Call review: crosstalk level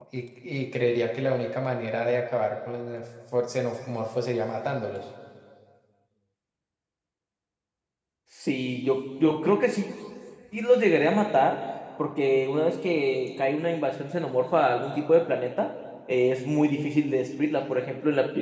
none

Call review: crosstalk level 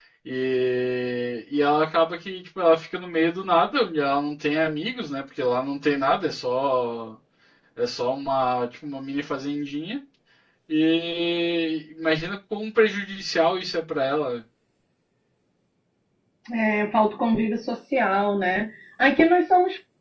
none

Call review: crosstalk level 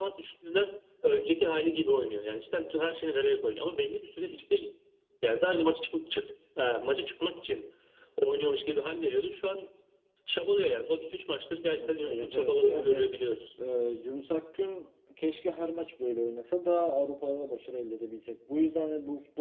present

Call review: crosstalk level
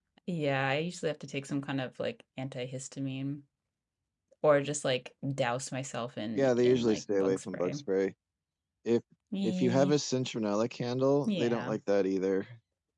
present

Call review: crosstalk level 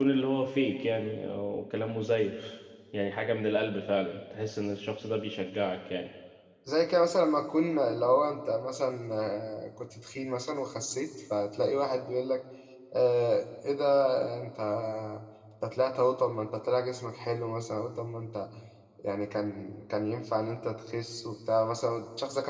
none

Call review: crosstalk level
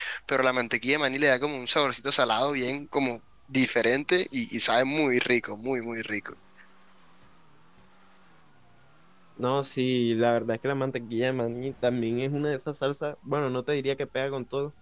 none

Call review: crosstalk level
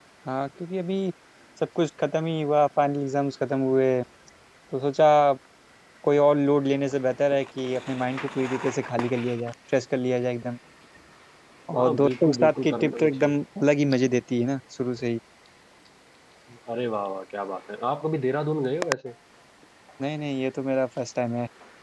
present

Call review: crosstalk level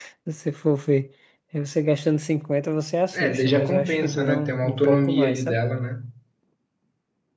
present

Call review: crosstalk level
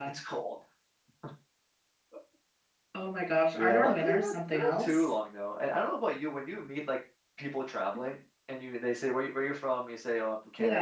present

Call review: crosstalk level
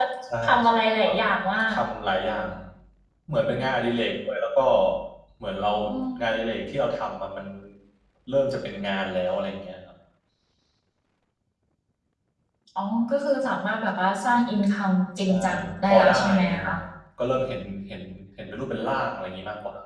present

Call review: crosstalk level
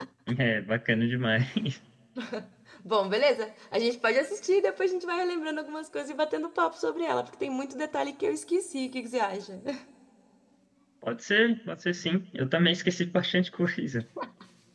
none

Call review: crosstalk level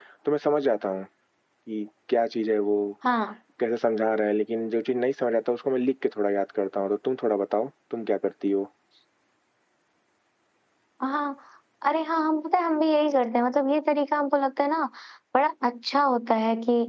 none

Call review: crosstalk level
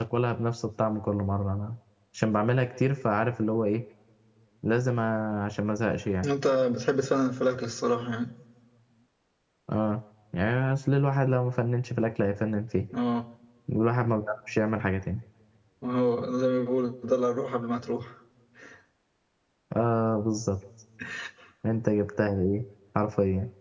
none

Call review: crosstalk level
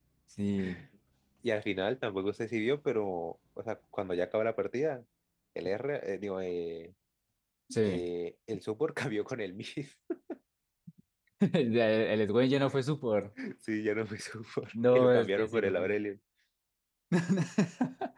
present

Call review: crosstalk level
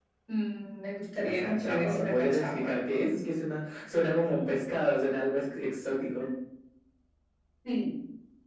present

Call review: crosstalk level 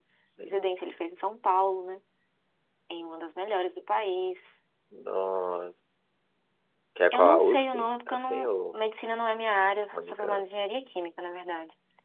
present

